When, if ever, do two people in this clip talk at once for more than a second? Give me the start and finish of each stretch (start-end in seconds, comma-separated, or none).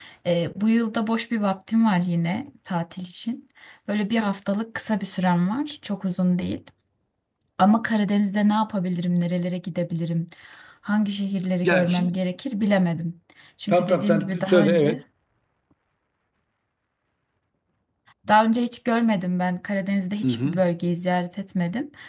13.7-15.0